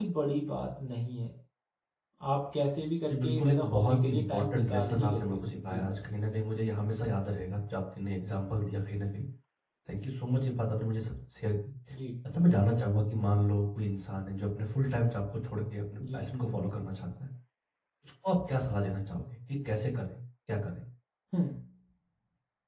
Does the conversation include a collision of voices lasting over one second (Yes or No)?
Yes